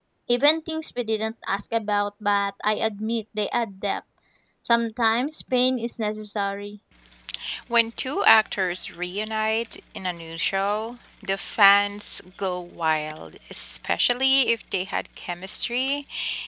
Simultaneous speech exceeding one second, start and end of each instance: none

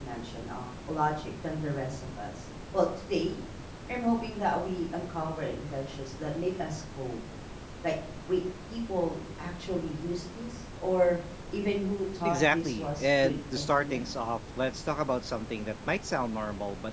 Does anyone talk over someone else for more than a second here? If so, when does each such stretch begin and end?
12.2-14.1

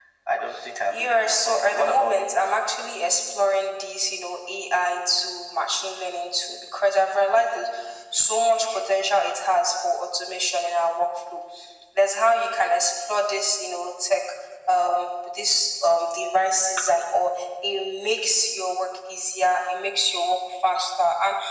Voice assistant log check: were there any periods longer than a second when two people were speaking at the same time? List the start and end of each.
0.9-2.4

